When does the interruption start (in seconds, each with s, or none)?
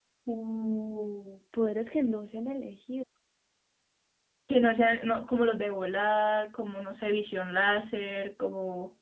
none